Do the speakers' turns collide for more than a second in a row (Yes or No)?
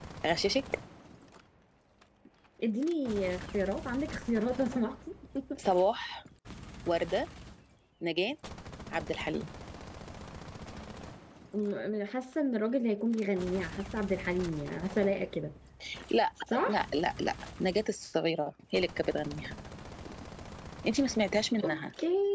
No